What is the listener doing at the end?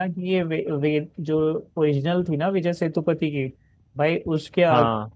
listening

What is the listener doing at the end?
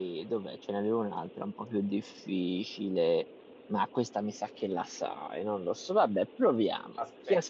listening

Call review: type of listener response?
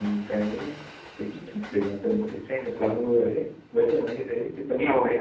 taking over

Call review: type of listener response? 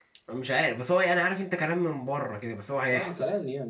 taking over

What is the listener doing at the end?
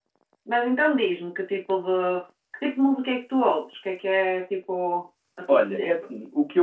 taking over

